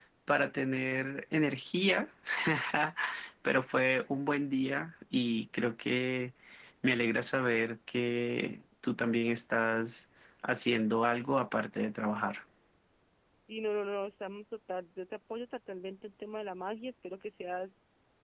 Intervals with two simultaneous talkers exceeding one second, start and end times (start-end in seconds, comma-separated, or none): none